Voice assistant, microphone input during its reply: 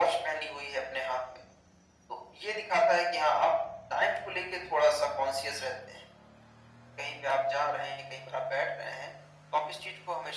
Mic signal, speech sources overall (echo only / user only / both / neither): echo only